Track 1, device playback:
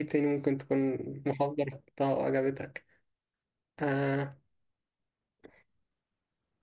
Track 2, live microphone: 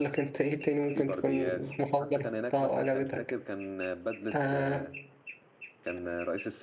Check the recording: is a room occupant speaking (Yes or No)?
Yes